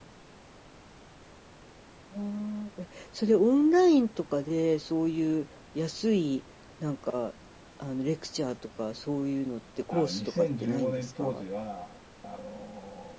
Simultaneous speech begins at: 9.9 s

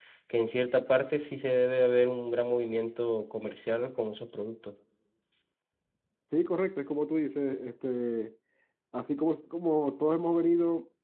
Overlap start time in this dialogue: none

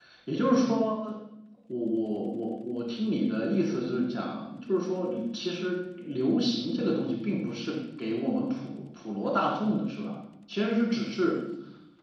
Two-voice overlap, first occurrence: none

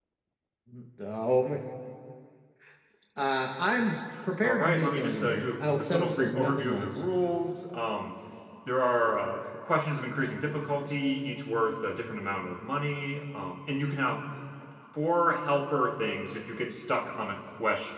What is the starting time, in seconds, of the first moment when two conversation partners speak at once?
4.4 s

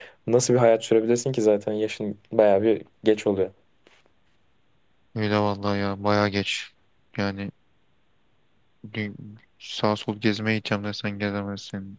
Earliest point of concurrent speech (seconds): none

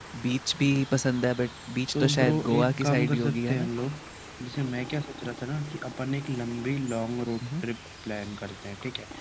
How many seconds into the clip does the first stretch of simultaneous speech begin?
1.9 s

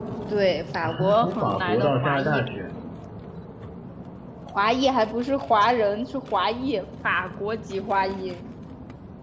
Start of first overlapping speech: 0.8 s

